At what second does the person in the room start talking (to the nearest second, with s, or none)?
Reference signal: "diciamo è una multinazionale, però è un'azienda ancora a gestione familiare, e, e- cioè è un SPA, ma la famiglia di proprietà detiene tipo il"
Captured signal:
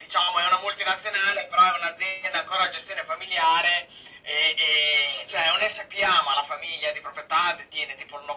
none